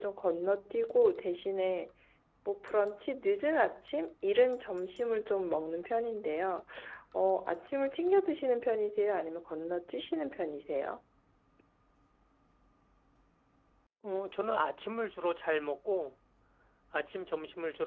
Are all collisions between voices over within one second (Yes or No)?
Yes